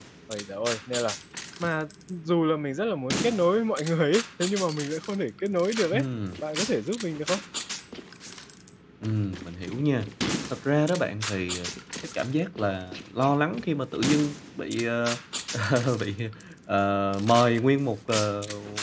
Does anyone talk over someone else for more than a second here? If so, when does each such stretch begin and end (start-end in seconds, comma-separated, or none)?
none